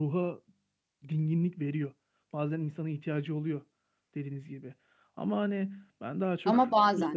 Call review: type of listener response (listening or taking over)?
listening